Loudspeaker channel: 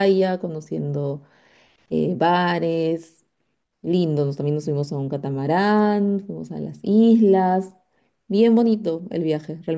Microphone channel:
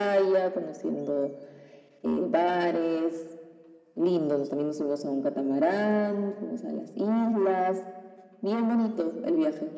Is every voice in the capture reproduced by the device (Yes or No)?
Yes